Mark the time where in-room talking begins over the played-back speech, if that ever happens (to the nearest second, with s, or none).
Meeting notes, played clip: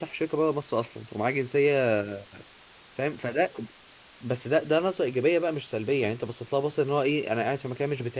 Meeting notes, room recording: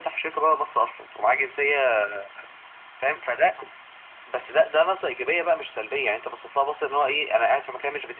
none